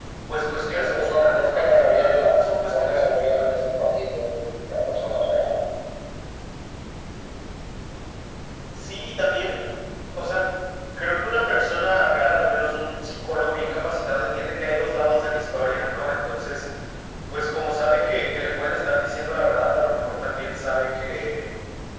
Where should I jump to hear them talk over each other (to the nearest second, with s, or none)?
1 s